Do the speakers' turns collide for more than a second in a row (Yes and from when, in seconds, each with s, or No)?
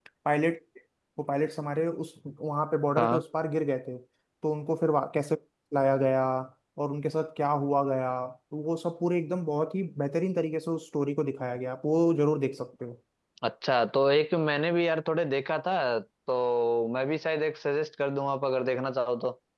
No